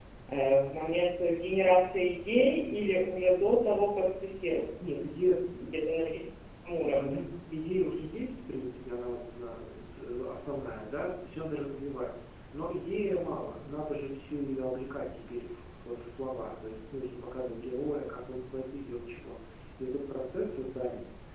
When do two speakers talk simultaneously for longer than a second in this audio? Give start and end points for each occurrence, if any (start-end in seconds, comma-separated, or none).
none